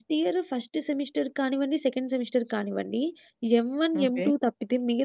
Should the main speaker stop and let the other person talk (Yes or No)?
No